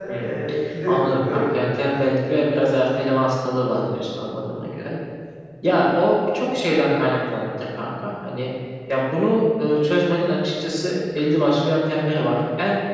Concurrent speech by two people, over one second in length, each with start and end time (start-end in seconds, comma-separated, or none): 0.9-2.1